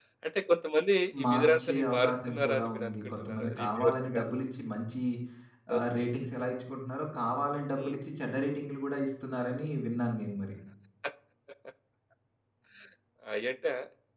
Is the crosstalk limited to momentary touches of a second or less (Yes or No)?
No